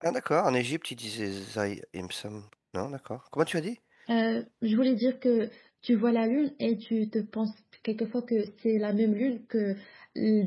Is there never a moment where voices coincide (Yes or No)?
Yes